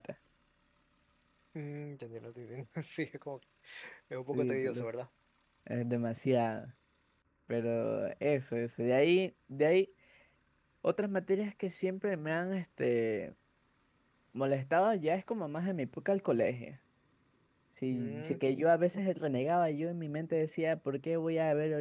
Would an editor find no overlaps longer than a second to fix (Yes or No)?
Yes